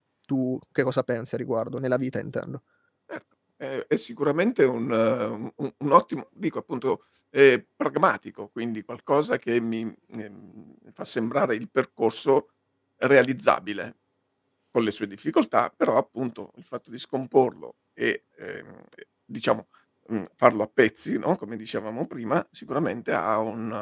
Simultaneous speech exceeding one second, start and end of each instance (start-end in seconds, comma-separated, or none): none